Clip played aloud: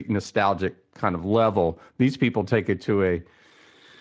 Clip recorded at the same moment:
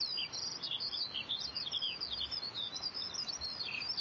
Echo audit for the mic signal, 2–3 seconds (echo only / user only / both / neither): neither